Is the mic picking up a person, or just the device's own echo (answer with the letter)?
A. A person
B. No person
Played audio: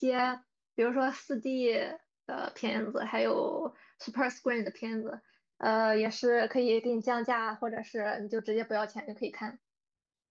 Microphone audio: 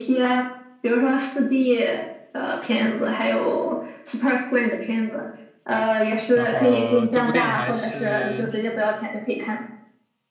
A